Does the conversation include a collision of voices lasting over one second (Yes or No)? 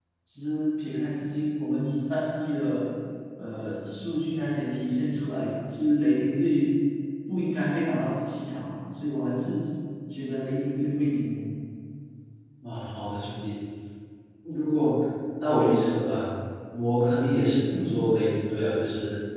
No